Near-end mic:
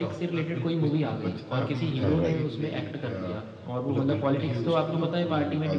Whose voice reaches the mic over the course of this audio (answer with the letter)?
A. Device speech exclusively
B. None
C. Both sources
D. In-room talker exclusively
C